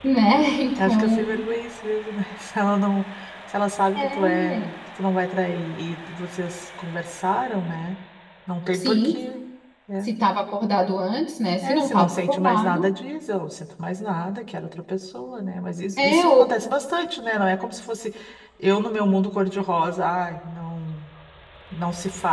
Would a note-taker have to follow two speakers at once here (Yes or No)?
Yes